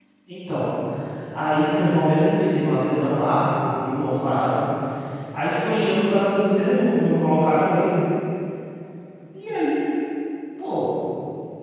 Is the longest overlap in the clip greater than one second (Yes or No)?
No